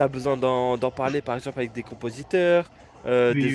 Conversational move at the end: listening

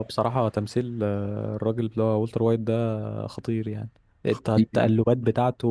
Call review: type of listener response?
listening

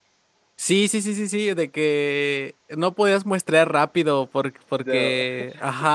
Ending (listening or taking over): listening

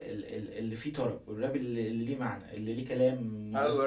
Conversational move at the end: taking over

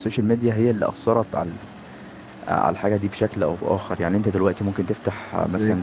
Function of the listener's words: listening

